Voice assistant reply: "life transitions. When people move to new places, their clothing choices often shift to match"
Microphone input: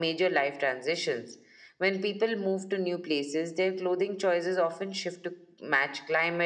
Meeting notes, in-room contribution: none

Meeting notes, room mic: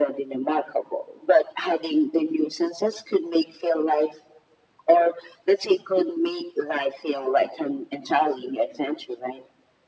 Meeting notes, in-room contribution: none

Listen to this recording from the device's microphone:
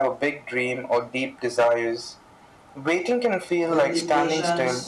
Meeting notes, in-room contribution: present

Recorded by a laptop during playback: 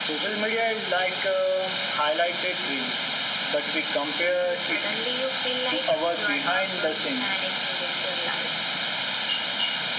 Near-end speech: none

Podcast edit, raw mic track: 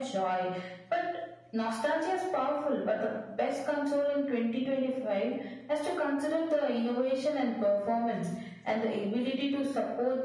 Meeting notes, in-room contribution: none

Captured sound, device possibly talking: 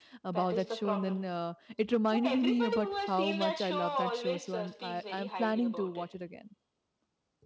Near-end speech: present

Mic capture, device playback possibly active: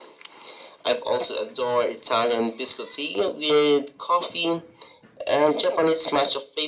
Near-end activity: none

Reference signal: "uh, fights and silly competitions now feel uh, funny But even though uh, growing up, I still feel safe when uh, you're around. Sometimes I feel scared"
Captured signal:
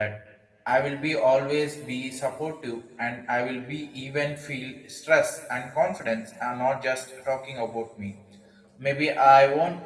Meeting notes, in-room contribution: present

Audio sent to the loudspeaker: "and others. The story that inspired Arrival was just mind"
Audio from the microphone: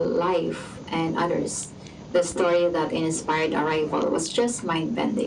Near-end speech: none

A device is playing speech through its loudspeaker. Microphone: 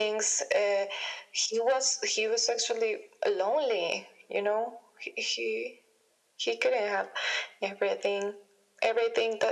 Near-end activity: none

